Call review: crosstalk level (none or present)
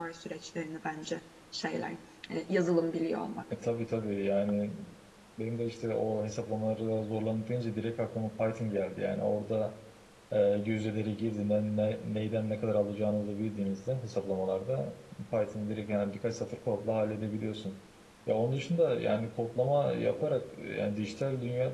none